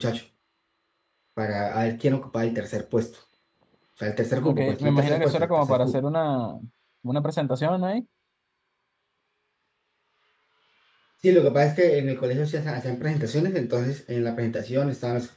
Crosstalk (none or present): present